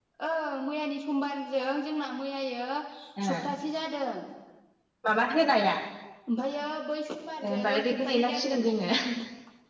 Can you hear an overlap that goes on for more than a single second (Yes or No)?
Yes